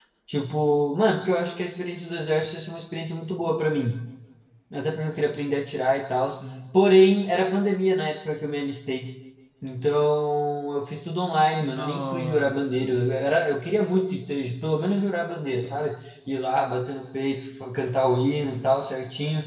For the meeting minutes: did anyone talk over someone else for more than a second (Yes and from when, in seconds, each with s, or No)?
Yes, from 11.6 s